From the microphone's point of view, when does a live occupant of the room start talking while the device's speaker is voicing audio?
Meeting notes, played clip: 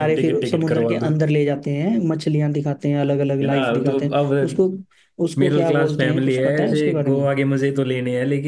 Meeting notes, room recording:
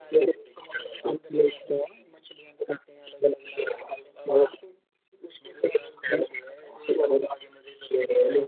none

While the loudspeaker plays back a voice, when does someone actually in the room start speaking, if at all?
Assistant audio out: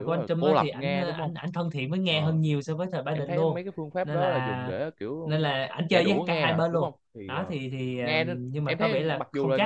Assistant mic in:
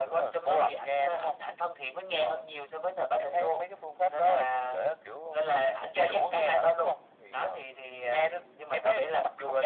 none

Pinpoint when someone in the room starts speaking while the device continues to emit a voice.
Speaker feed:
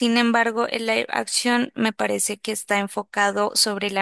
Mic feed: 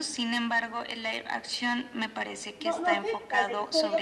2.6 s

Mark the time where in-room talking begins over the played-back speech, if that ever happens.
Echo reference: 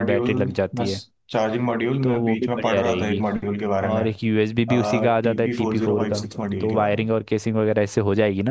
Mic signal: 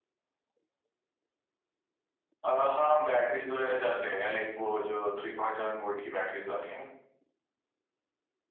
2.4 s

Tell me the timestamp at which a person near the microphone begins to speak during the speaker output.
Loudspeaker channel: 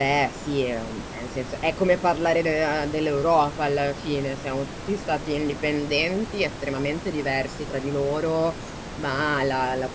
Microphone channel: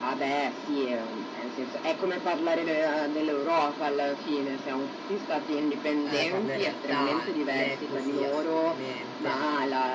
6.0 s

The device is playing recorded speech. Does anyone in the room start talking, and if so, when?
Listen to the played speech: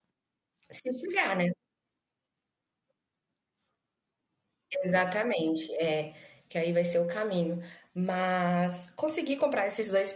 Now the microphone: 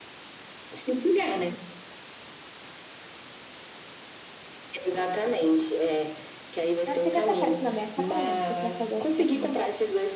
6.8 s

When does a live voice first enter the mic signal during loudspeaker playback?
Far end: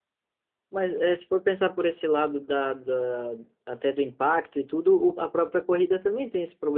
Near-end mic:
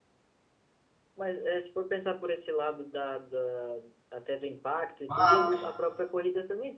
5.1 s

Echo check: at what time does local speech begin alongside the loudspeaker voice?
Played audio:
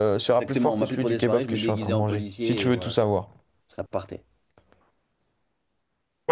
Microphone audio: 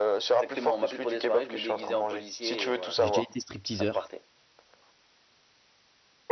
3.0 s

